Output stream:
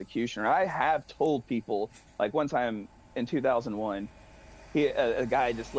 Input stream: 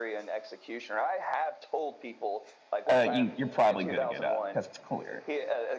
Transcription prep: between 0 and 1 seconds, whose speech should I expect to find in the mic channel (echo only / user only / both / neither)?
echo only